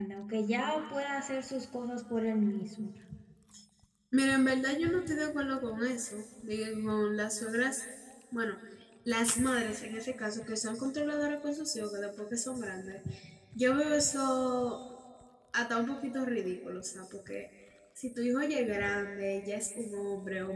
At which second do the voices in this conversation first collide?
none

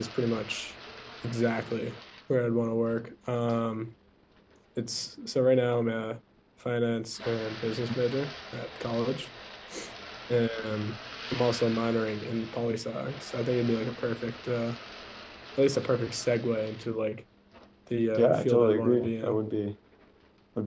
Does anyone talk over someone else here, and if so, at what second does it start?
18.2 s

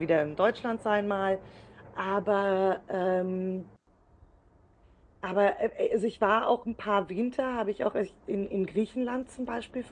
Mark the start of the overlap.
none

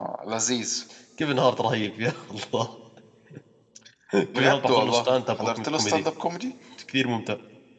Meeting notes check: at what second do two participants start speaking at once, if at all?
4.3 s

